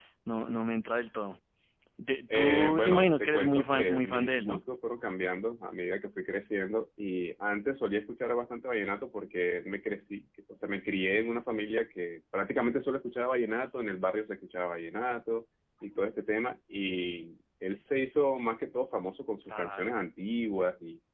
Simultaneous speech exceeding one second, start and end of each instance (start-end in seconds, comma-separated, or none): 2.3-4.6